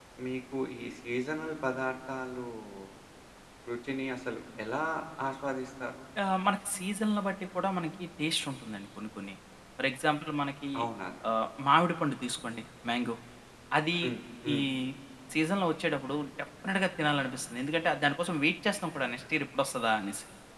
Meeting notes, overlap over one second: none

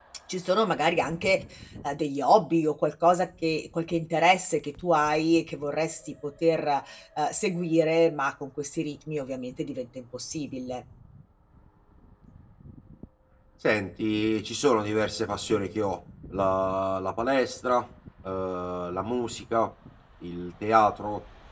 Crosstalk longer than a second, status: none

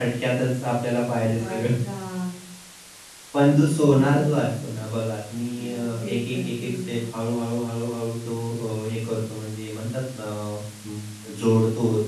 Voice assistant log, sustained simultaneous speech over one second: present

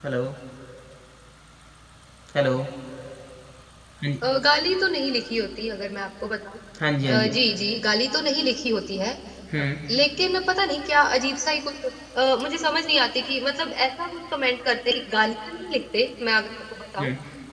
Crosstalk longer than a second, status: none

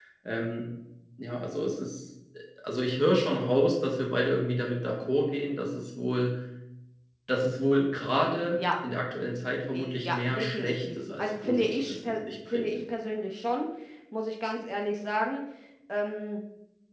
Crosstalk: present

